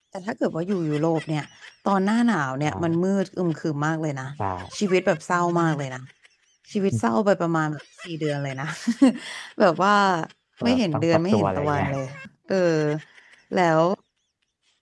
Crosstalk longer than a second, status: present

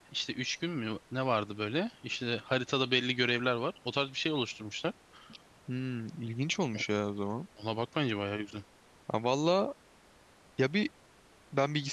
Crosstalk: none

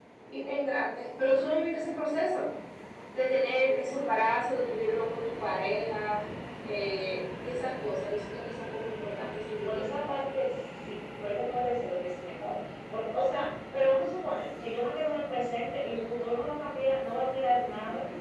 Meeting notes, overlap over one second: none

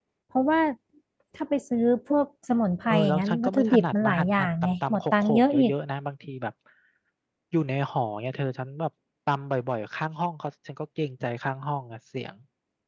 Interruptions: present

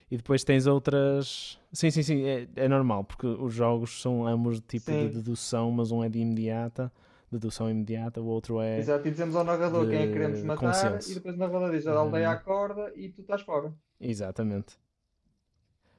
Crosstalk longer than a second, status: present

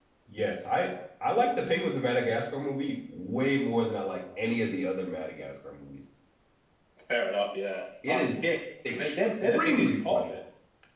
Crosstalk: present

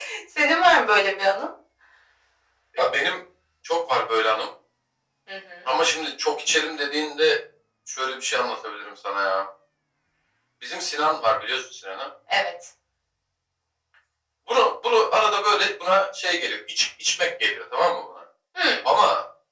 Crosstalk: none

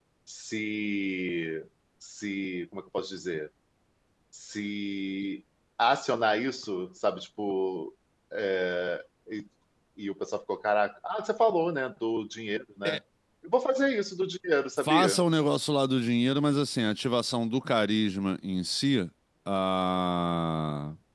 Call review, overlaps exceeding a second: none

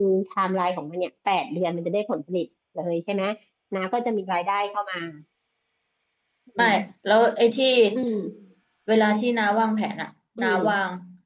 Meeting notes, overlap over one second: none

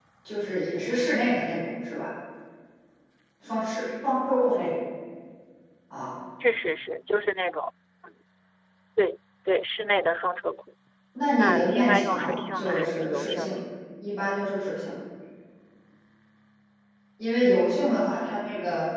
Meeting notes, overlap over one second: present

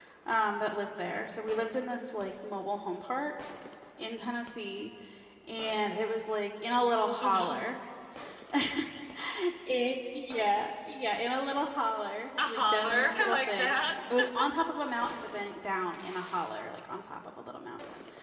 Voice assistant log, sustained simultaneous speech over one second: present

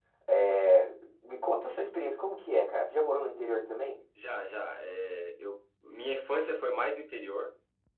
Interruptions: none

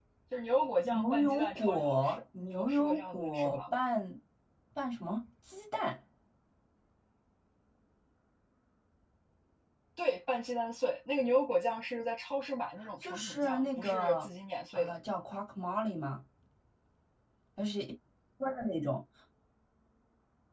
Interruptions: present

